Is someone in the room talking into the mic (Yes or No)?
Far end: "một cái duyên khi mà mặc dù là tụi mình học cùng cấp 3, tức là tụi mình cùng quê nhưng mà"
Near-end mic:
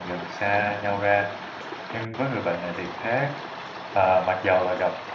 Yes